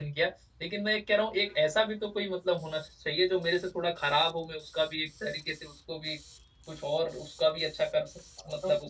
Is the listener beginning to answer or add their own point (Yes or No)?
Yes